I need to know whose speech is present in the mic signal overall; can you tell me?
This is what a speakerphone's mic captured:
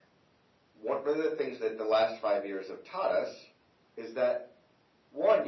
echo only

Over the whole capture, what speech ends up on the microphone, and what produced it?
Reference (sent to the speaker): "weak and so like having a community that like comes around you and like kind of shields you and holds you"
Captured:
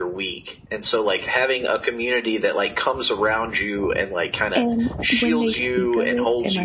both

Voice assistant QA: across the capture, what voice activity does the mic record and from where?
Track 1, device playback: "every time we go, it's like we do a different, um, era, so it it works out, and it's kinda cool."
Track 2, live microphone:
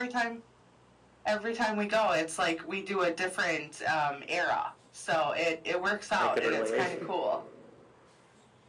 both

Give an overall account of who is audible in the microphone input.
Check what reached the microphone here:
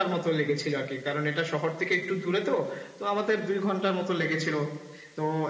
echo only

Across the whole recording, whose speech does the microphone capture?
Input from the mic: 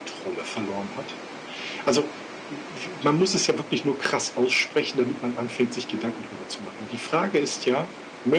both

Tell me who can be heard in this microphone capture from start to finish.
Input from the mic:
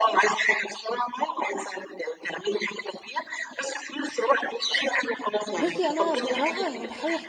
both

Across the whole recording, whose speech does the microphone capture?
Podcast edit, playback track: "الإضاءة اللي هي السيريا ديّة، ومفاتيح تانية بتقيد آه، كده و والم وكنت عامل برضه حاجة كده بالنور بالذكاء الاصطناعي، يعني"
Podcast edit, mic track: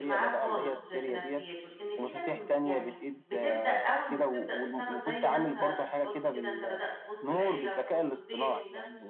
both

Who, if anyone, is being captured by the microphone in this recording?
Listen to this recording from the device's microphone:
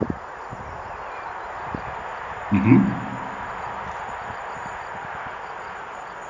user only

